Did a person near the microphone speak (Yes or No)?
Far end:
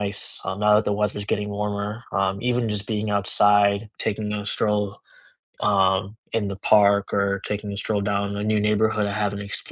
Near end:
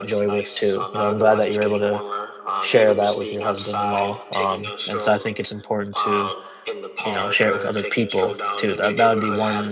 Yes